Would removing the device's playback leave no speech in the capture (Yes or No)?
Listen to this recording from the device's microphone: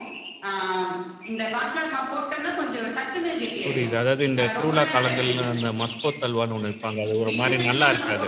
No